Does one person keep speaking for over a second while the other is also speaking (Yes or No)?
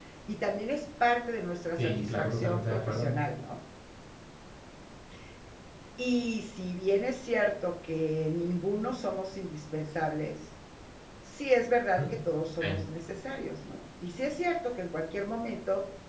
Yes